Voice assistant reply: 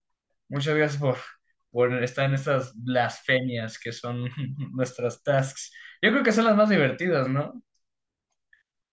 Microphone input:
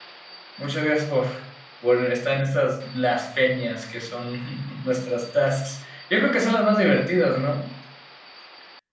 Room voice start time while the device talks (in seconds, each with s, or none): none